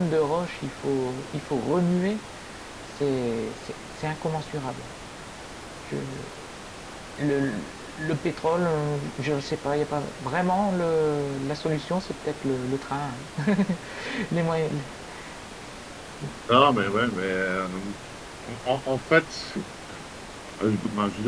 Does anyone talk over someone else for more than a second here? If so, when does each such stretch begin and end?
none

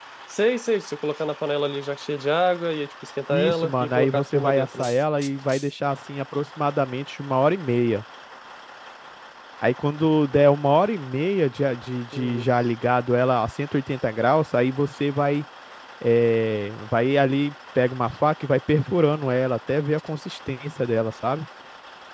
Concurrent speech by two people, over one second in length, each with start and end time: 3.3-4.9

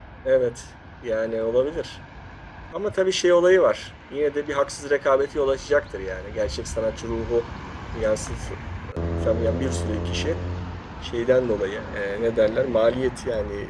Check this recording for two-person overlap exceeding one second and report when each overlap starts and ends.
none

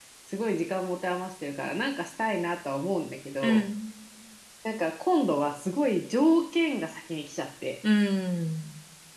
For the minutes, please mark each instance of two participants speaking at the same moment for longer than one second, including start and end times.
none

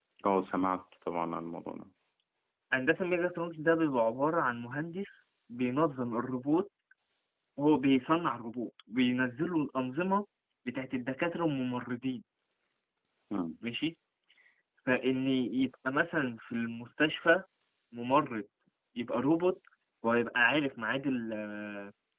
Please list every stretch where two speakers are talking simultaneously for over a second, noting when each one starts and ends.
none

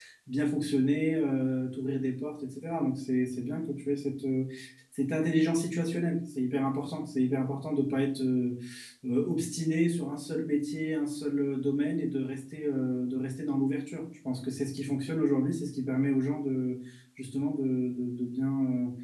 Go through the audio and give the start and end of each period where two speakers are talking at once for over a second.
none

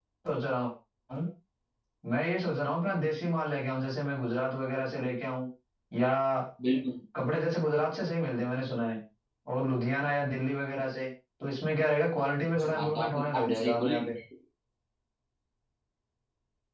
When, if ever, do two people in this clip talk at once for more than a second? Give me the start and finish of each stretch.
12.5-13.9

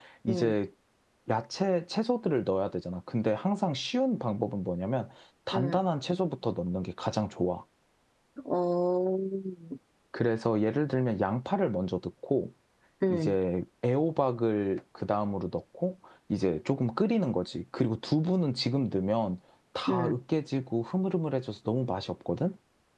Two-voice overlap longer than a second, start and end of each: none

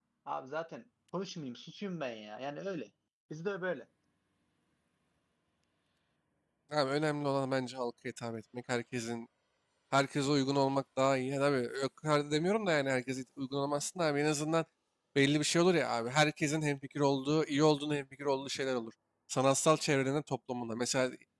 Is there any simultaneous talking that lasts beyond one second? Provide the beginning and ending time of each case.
none

